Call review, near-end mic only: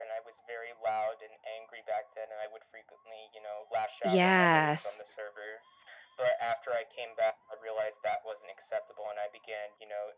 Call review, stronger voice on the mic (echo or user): user